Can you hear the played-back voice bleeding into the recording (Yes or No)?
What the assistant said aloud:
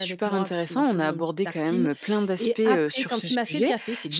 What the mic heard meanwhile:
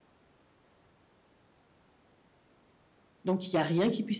No